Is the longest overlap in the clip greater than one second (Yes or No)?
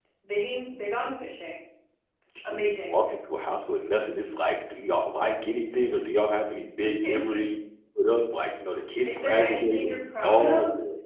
Yes